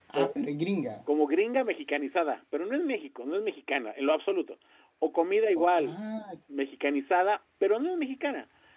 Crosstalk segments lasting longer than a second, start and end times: none

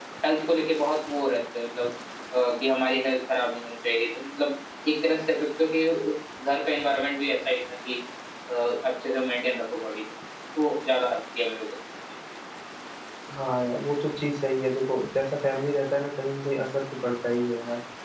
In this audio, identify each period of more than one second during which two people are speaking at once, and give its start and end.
none

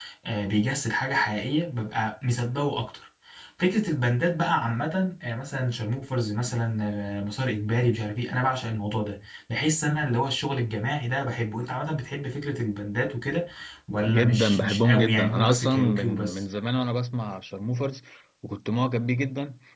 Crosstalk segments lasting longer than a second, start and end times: 14.1-16.4

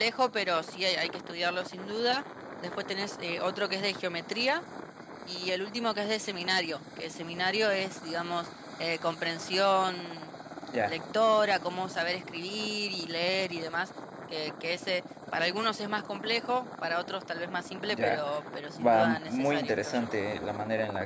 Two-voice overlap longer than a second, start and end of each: 18.8-20.1

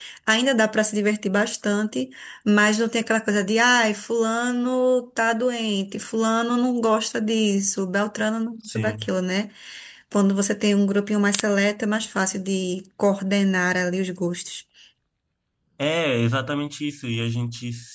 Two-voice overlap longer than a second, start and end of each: none

